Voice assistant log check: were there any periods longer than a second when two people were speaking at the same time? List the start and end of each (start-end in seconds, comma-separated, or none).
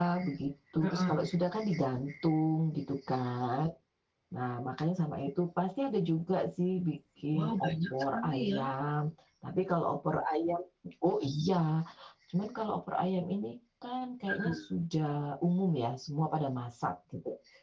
7.3-8.6